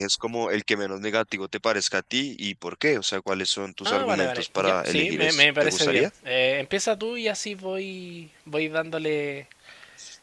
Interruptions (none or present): present